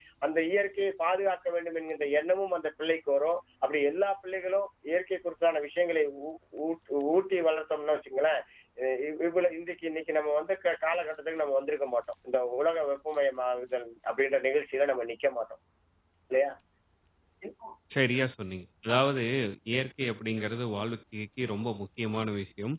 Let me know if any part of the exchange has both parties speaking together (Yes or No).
No